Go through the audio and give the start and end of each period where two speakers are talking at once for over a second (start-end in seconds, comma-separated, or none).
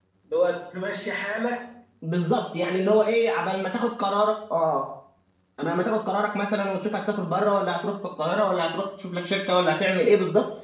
none